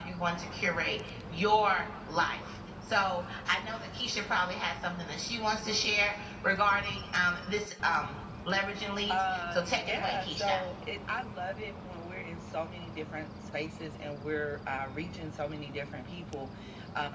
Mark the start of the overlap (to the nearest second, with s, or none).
9 s